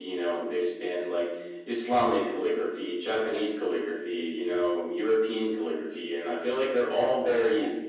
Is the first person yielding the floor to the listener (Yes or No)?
No